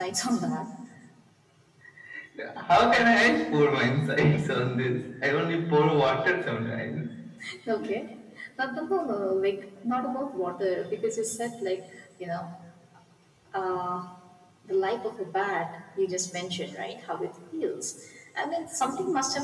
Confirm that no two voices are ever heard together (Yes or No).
Yes